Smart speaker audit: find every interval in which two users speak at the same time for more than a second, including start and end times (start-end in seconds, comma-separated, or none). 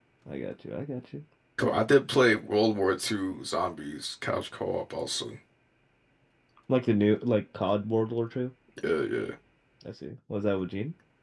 none